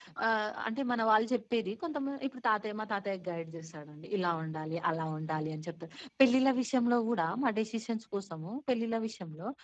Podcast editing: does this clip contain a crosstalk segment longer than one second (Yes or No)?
No